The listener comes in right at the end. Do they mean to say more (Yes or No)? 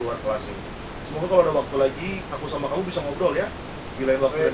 Yes